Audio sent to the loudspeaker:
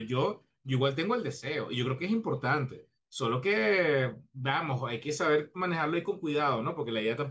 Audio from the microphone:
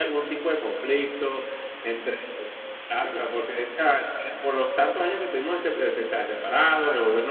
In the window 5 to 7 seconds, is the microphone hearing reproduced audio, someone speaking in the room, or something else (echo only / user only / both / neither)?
user only